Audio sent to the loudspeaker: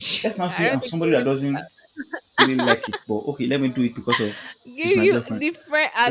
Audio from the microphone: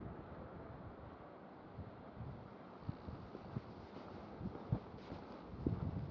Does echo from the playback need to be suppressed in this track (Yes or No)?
No